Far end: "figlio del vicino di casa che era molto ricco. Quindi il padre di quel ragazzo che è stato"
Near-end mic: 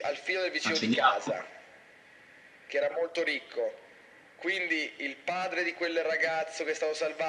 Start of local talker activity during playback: 1 s

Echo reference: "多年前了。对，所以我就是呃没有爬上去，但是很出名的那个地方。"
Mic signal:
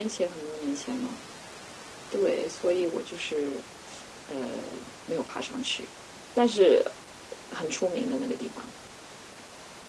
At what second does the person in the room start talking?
none

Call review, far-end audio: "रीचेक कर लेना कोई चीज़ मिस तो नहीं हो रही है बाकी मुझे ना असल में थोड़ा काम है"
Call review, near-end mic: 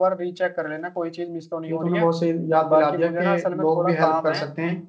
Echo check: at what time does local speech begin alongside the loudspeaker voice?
2 s

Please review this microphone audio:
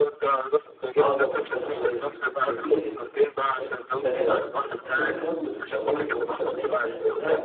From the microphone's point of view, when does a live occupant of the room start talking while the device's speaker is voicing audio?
1 s

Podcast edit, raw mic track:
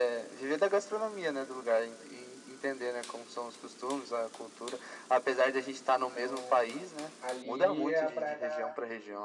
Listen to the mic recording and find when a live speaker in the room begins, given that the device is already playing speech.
6 s

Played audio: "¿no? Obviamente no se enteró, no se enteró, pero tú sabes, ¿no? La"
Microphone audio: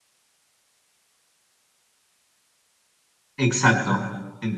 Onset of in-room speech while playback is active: 3 s

